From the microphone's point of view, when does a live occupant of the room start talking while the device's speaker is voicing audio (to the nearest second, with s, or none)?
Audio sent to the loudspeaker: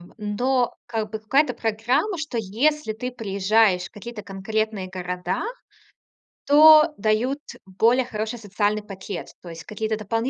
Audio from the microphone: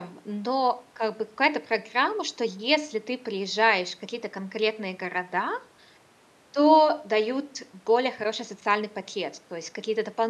none